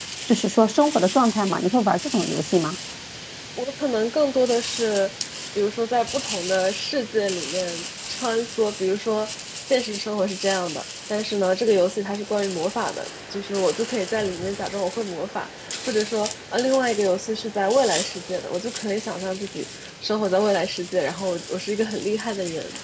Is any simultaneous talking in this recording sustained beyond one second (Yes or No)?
No